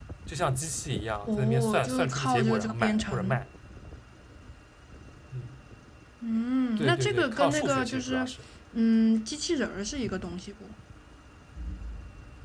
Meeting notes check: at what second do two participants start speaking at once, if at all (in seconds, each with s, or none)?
1.3 s